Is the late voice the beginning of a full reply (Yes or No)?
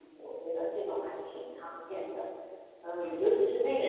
Yes